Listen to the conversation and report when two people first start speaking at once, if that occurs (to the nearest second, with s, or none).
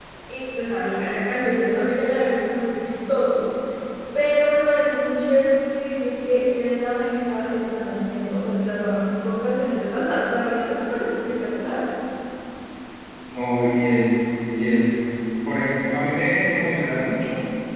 none